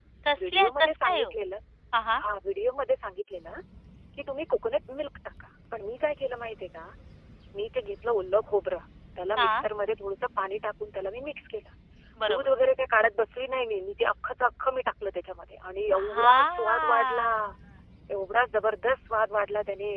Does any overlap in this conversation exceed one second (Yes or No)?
Yes